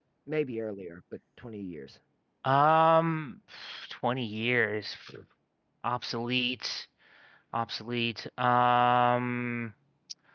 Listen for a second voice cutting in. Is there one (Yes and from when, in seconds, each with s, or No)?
No